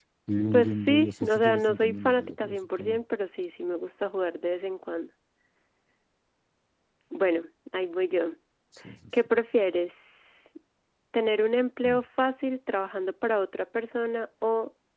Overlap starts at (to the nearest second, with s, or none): 1 s